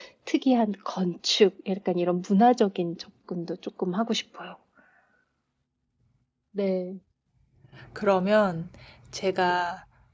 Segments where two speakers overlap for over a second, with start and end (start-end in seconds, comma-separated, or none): none